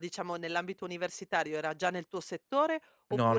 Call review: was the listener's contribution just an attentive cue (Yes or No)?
Yes